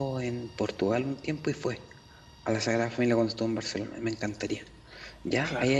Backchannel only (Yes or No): Yes